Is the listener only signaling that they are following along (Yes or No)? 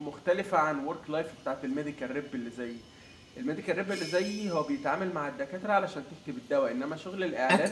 Yes